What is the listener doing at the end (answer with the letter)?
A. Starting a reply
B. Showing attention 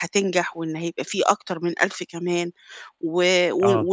B